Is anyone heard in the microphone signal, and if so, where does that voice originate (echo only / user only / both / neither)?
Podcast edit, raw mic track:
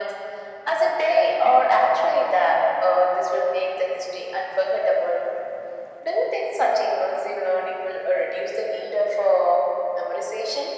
echo only